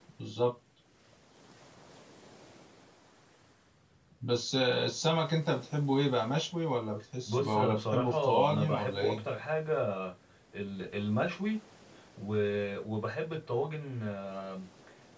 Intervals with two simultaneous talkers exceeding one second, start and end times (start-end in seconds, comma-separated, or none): 7.3-9.2